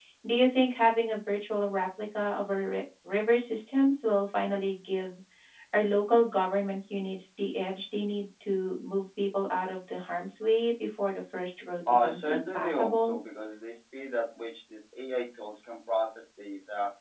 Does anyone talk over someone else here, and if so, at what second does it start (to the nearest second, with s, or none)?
12 s